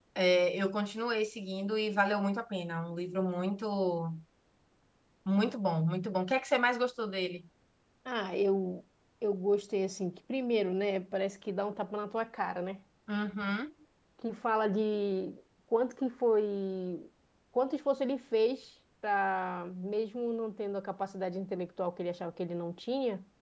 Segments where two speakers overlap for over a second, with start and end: none

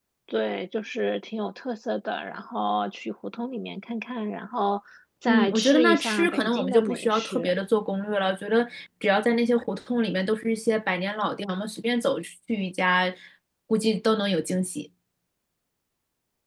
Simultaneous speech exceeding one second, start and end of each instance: 5.2-7.5

